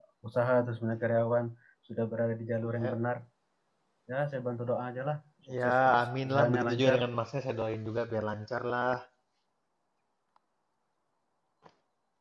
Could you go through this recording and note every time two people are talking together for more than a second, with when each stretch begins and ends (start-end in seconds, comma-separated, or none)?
5.6-7.0